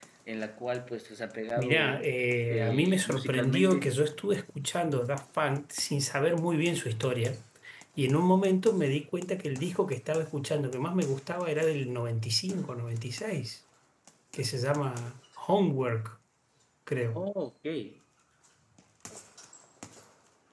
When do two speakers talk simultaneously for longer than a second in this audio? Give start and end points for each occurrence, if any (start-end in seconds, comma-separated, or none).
2.5-3.9